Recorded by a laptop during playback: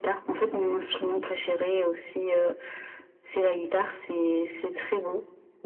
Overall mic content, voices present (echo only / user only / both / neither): echo only